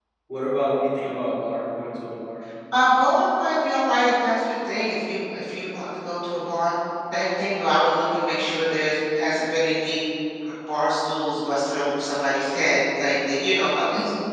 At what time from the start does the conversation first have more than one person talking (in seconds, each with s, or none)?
none